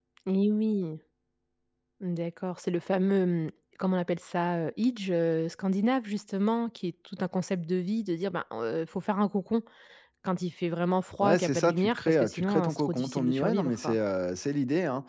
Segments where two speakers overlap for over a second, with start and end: 11.2-14.0

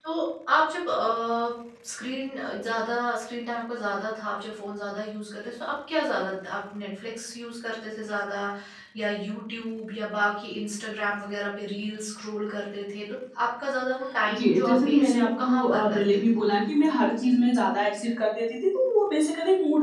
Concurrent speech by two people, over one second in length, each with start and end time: 14.3-16.2

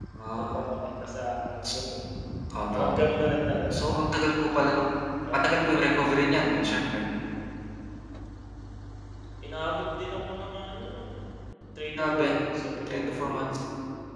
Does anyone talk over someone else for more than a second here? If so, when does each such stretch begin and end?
none

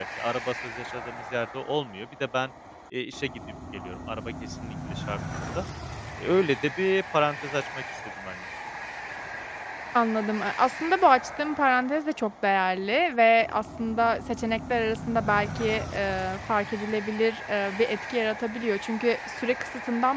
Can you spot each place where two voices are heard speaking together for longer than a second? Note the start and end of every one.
none

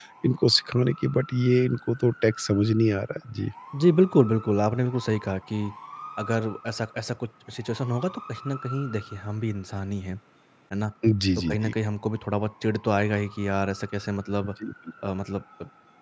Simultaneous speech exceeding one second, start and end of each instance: none

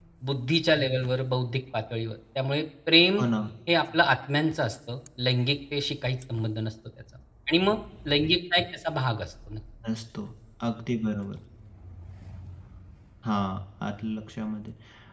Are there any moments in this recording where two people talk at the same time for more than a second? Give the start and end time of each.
none

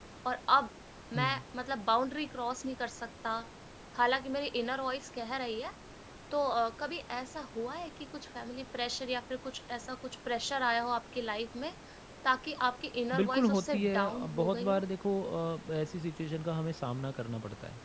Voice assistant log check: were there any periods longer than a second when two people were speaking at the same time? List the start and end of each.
13.1-14.8

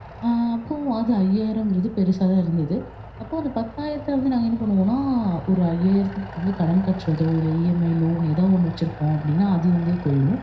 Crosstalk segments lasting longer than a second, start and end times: none

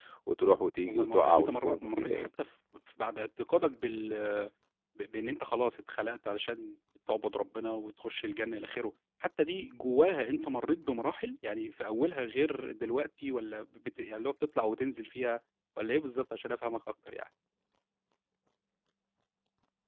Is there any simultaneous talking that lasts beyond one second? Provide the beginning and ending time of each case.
0.8-2.3

